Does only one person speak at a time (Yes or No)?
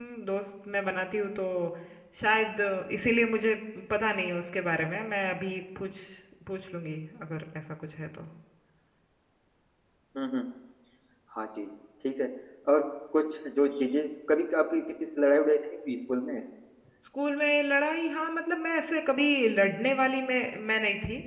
Yes